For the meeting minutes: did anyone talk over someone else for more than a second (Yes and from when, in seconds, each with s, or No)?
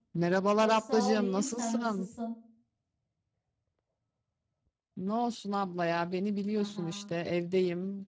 Yes, from 0.6 s